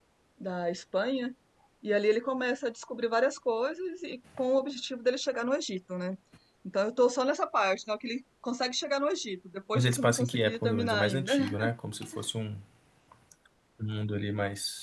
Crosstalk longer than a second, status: present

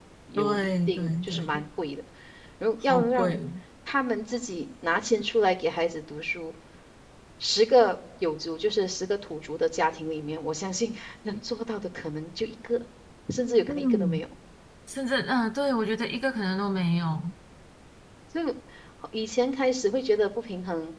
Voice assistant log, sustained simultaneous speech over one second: present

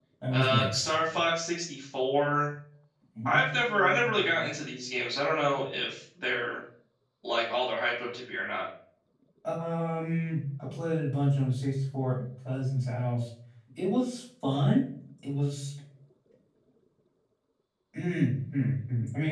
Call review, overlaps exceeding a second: present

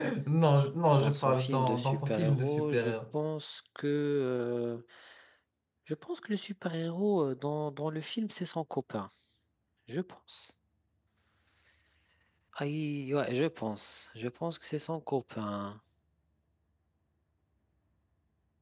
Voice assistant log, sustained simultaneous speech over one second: present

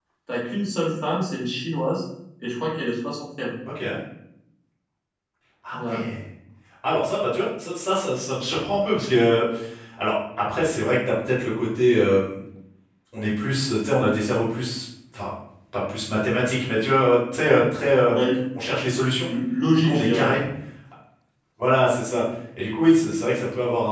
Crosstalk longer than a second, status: none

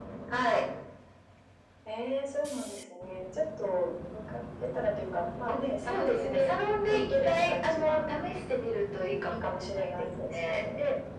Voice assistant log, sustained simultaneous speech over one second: present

